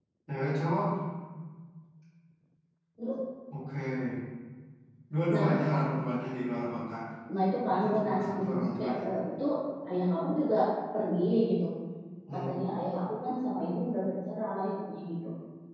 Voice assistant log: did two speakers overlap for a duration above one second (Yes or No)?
Yes